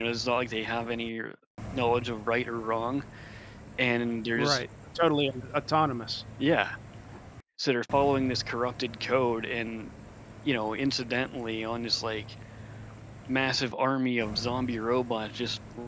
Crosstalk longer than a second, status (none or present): none